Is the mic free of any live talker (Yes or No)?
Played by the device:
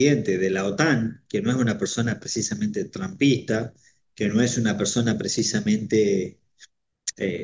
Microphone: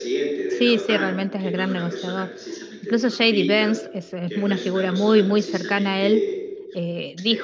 No